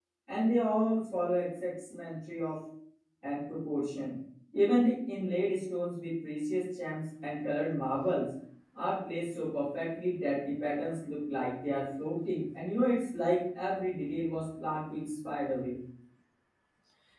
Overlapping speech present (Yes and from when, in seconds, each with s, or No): No